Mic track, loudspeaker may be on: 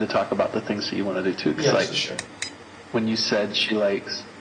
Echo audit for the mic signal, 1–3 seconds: both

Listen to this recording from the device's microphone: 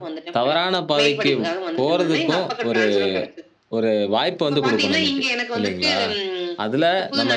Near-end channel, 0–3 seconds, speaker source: both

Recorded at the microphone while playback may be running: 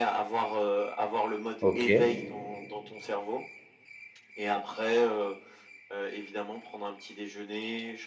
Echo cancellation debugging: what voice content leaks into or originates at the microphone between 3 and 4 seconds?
echo only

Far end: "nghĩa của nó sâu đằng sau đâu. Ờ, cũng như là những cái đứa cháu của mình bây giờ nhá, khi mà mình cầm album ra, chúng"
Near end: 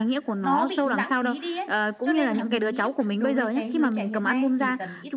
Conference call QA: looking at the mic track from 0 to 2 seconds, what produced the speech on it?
both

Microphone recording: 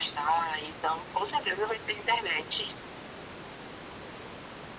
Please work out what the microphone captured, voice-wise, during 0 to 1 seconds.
echo only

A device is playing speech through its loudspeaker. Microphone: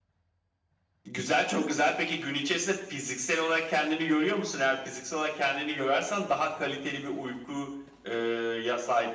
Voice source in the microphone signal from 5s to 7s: echo only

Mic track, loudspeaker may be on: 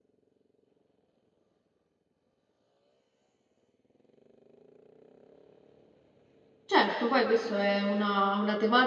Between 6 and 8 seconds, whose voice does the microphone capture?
user only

